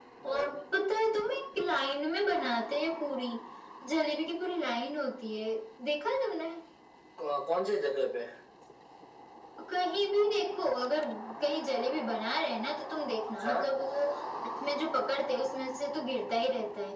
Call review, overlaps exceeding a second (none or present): none